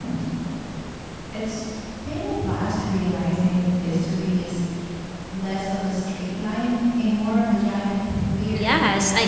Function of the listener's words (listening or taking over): taking over